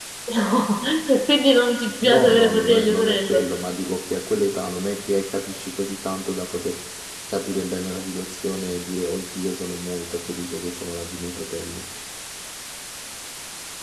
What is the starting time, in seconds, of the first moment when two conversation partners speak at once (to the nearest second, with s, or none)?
2 s